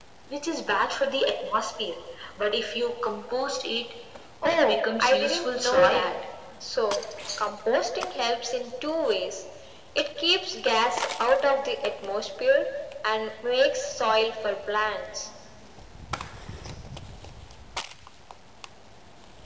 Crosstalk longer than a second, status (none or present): present